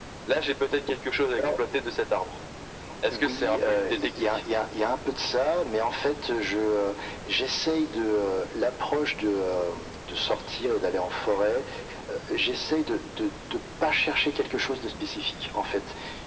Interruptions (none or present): present